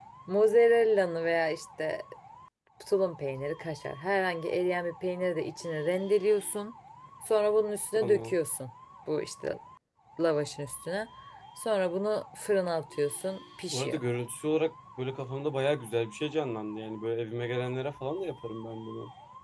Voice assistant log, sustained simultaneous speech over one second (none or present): none